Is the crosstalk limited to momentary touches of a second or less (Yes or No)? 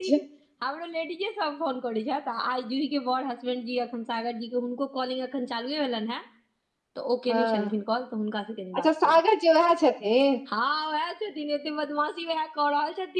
Yes